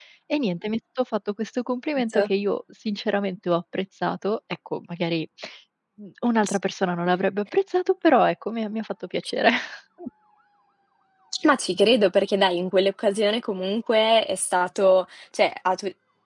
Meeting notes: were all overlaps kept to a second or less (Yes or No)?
Yes